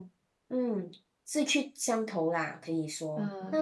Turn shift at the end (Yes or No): Yes